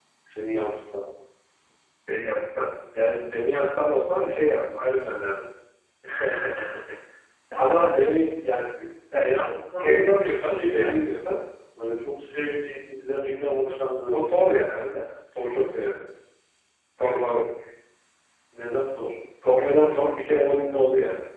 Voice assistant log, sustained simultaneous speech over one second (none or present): present